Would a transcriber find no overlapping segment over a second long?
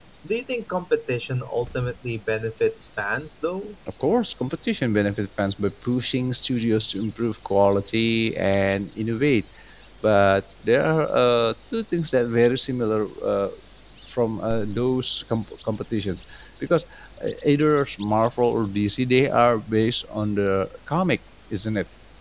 Yes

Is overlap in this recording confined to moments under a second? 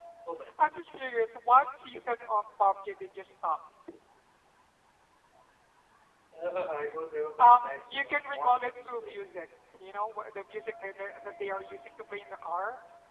No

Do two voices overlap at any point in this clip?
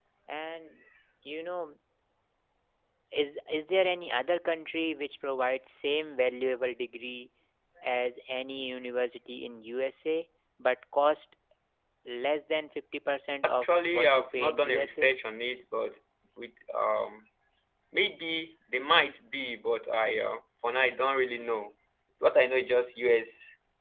Yes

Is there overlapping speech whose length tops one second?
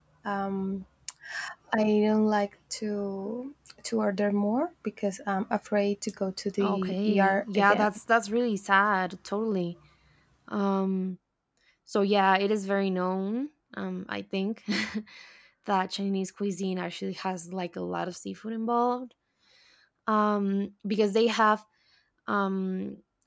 Yes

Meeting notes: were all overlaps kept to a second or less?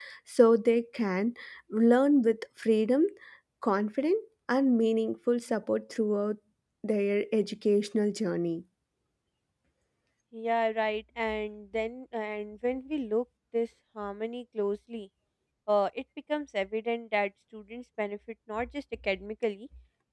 Yes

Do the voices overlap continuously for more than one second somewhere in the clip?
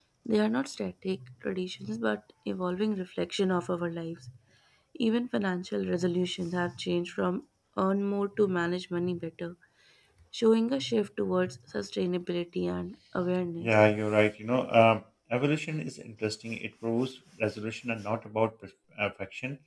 No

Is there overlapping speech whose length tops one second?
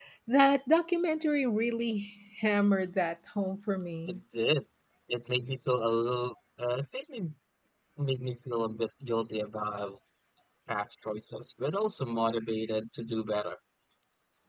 No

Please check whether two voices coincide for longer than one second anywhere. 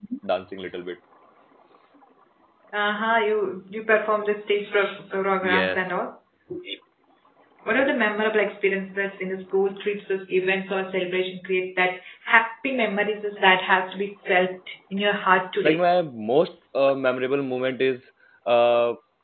No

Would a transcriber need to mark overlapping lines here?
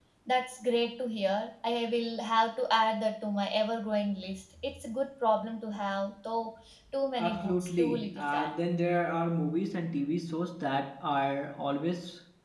Yes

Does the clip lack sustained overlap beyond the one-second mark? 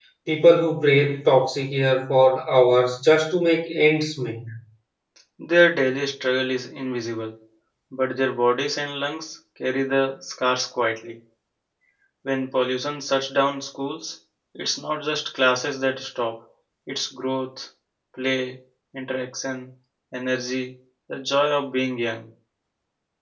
Yes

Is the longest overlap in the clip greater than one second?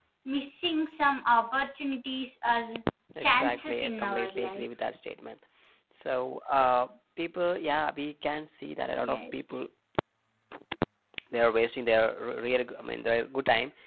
Yes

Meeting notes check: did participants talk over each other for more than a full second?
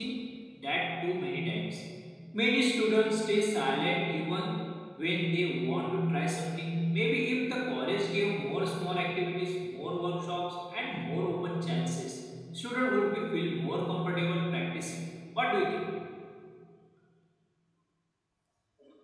No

